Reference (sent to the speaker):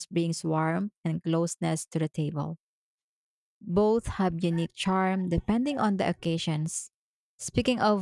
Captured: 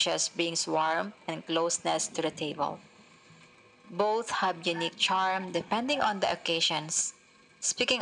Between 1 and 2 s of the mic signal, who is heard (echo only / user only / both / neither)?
echo only